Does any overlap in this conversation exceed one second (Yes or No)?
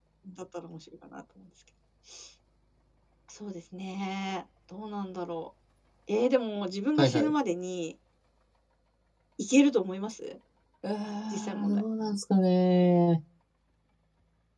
No